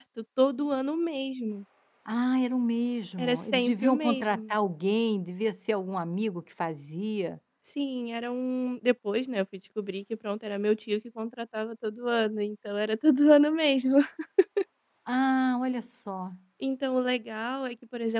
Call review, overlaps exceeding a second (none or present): present